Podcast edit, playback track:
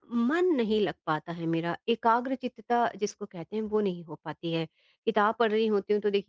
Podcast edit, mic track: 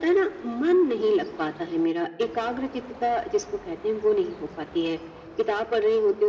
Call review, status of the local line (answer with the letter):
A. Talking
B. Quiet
B